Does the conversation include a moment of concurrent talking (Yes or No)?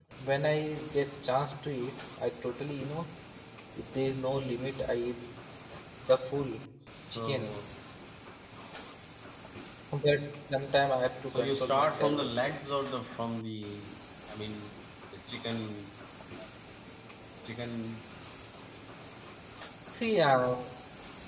Yes